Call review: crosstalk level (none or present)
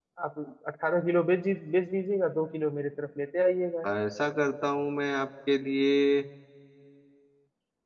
none